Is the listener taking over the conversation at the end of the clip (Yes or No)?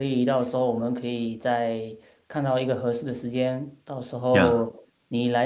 No